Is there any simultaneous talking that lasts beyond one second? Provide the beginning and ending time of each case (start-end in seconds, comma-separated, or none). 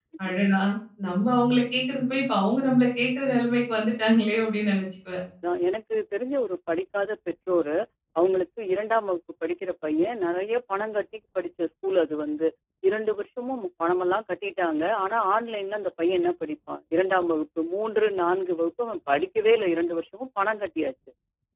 none